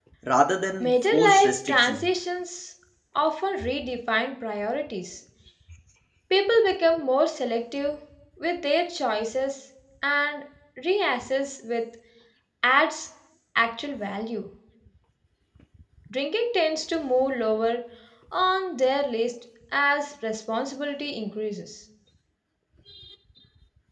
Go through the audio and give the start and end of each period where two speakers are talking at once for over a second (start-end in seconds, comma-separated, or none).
0.8-2.1